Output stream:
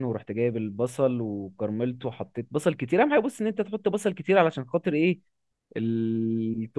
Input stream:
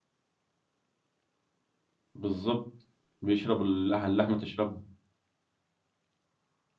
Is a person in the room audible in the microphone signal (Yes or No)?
Yes